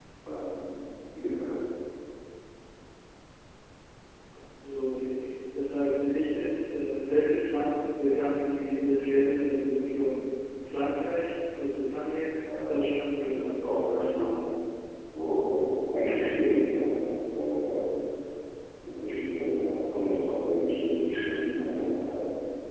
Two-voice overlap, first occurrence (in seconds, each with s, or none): 12.5 s